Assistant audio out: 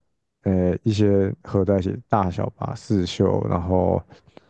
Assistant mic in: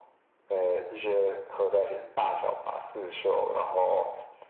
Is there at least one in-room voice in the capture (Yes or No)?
No